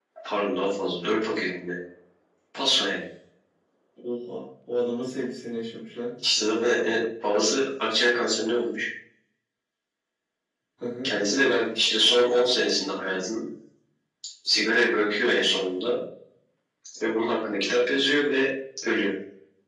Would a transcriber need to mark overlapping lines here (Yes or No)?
No